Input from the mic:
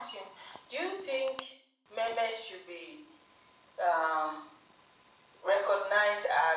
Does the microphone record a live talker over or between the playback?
No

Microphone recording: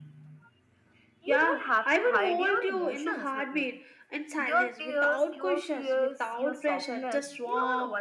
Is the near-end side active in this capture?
No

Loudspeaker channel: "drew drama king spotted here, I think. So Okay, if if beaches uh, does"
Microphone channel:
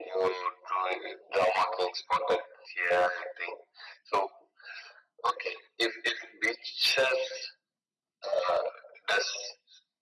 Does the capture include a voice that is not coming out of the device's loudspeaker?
No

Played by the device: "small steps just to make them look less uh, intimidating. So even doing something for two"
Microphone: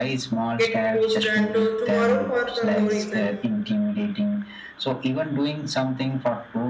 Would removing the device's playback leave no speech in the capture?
No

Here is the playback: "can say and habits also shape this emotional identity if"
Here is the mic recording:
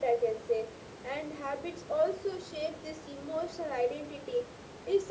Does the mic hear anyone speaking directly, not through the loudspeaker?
No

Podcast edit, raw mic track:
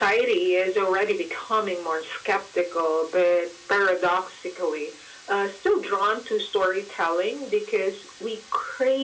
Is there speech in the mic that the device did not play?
No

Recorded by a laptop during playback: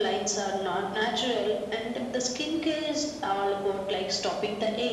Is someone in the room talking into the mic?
No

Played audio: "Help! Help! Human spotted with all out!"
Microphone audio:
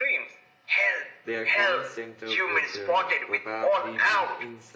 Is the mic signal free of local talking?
No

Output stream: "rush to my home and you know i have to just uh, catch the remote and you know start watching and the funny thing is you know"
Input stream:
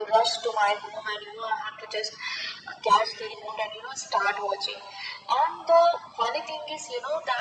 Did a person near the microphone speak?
No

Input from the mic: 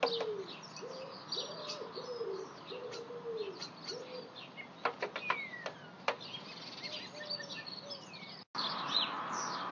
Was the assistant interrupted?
No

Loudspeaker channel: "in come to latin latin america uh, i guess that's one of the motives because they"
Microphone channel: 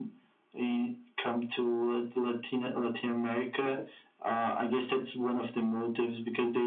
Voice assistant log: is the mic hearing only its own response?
Yes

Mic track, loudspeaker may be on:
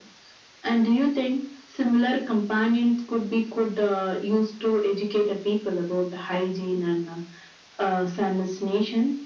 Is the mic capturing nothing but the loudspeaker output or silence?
Yes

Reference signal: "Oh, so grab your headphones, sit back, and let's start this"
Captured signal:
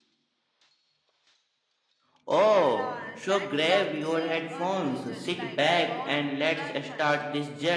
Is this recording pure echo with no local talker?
No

